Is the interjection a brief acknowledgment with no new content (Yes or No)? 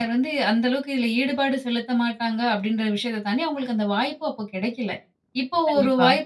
Yes